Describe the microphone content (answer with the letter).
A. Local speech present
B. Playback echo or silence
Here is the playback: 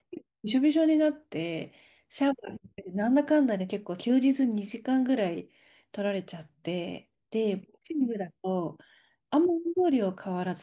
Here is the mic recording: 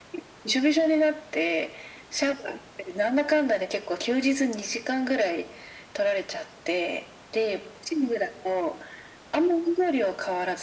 B